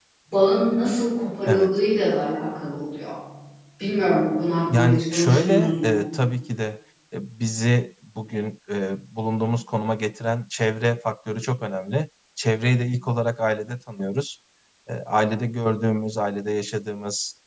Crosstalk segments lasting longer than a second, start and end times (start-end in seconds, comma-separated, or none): 4.7-6.0